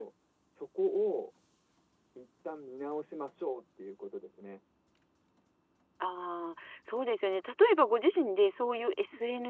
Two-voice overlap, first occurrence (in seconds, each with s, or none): none